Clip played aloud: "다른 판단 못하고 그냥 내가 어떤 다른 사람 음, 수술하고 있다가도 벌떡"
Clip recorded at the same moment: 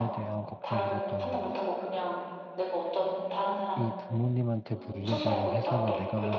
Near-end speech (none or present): present